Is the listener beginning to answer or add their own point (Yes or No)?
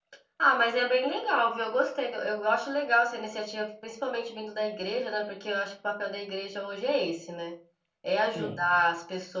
No